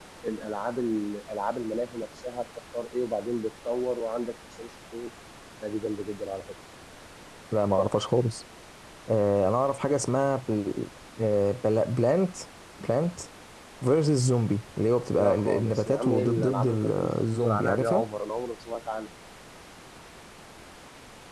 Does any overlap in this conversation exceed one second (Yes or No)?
Yes